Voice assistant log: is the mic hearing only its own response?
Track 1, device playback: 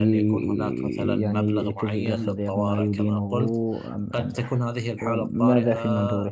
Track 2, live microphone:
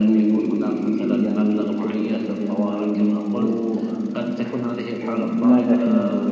Yes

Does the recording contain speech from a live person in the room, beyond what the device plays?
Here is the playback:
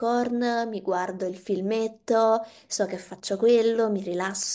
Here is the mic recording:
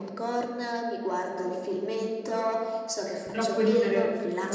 Yes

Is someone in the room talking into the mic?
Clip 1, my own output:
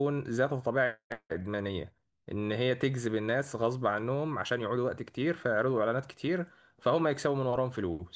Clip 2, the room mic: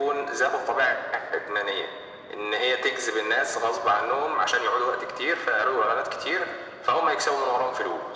No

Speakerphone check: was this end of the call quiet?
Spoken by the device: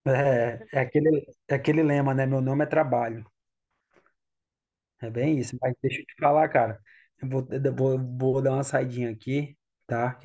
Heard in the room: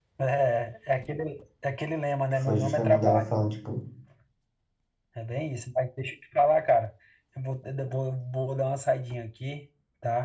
No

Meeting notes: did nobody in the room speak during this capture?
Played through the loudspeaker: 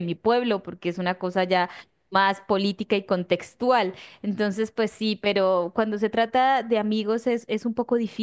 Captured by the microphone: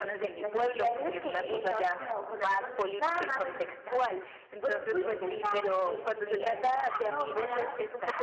No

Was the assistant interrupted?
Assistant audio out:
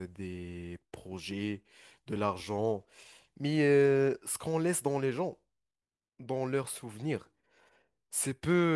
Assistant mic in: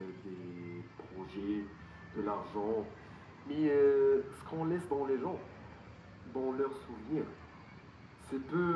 No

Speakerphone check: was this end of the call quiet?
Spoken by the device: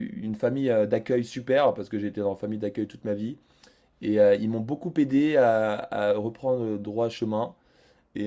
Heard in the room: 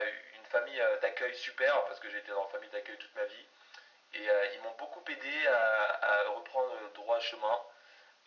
Yes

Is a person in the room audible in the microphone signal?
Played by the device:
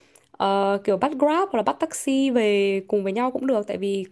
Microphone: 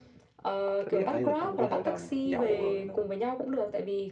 Yes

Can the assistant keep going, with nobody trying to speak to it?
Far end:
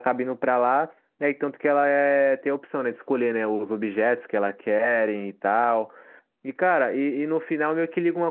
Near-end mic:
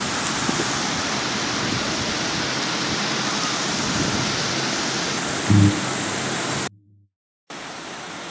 No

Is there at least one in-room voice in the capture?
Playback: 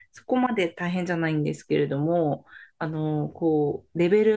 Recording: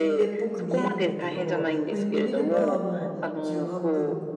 Yes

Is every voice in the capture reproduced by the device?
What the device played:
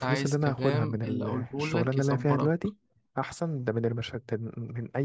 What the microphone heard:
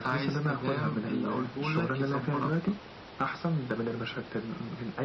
Yes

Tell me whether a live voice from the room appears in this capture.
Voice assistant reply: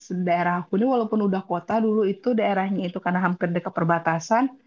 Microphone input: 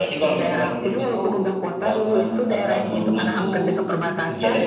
Yes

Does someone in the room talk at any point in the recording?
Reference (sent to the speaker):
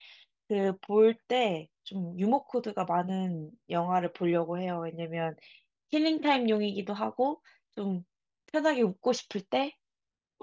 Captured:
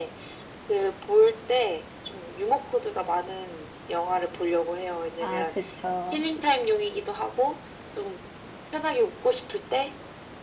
Yes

